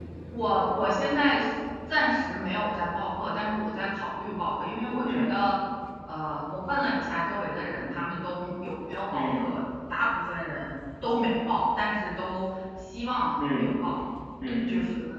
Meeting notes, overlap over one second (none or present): none